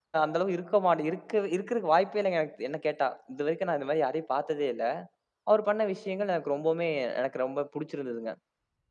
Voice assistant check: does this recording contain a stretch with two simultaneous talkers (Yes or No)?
No